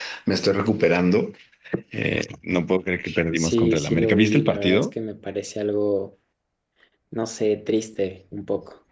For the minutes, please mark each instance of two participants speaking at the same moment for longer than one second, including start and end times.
3.4-4.9

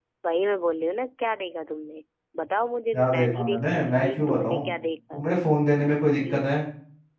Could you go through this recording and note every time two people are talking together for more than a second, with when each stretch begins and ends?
2.9-4.7

